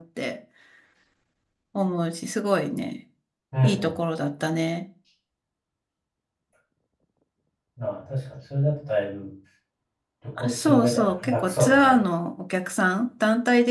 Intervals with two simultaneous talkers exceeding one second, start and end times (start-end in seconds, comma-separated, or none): 10.4-12.0